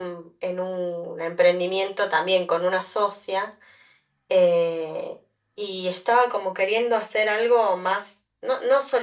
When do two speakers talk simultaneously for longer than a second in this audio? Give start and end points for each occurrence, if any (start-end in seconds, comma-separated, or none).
none